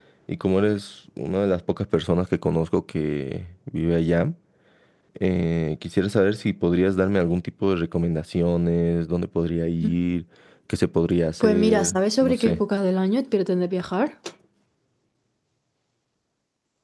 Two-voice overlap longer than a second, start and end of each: 11.4-12.6

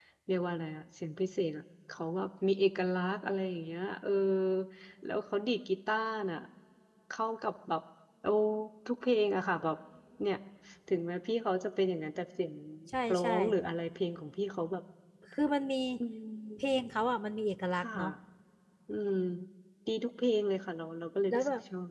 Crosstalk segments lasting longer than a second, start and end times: none

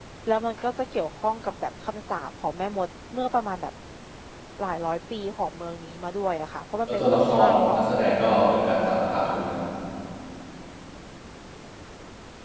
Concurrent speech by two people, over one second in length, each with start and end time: 6.9-8.2

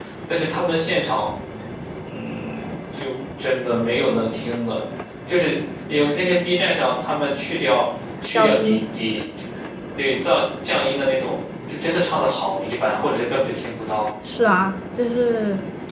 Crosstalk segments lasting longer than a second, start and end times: none

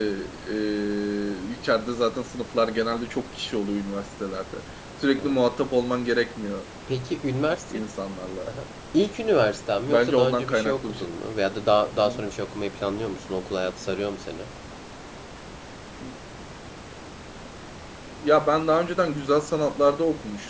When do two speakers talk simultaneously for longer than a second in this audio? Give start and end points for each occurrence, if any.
9.9-11.1

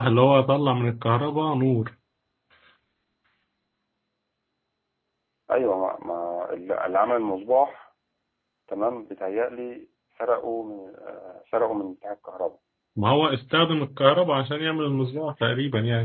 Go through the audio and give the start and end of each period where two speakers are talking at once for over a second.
none

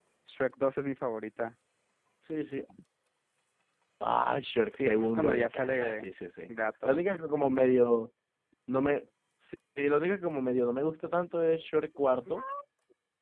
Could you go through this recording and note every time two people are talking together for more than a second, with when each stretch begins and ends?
4.7-6.1

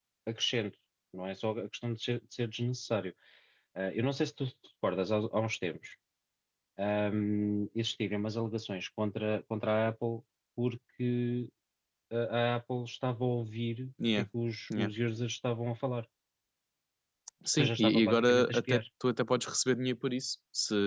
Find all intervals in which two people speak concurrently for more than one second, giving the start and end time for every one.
17.5-18.8

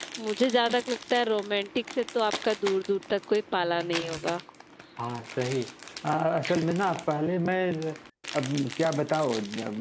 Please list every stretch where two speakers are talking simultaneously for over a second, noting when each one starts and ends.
none

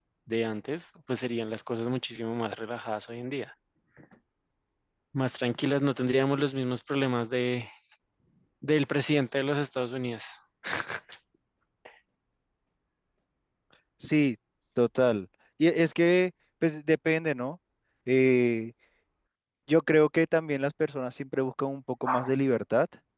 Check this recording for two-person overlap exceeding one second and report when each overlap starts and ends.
none

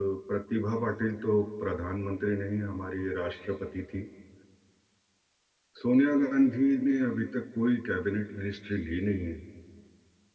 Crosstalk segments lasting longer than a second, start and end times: none

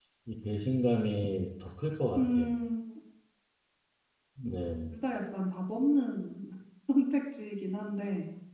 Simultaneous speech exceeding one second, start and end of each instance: none

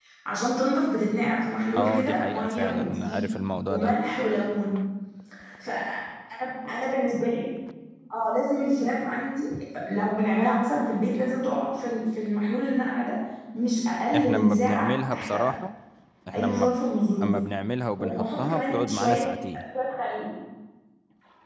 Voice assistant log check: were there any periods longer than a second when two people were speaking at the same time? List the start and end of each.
1.7-3.2, 14.2-15.4, 18.0-19.2

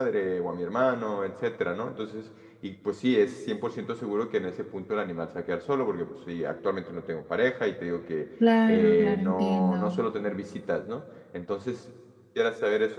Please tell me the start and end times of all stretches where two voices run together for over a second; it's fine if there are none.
8.7-10.0

